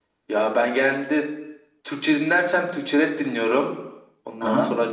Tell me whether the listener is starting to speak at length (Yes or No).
No